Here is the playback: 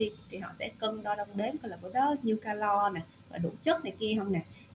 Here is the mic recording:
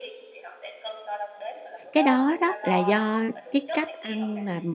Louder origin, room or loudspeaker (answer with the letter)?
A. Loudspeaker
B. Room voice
B